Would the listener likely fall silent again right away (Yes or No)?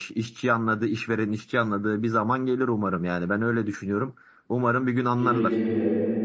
No